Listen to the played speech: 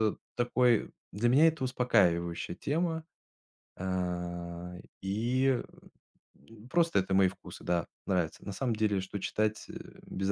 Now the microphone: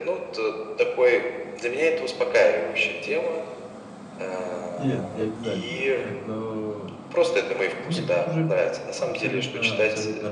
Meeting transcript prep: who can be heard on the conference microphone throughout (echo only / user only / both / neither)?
both